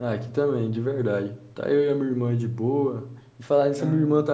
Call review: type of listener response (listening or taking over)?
listening